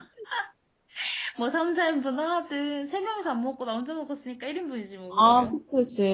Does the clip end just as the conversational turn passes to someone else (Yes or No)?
Yes